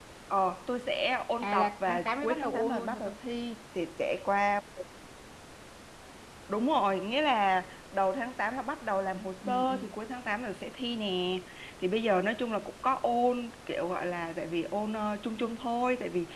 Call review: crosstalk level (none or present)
present